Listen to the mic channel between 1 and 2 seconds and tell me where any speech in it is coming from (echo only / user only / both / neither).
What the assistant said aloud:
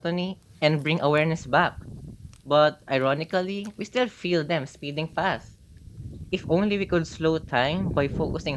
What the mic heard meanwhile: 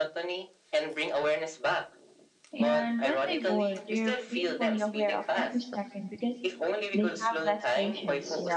echo only